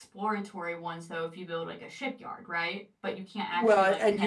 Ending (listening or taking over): taking over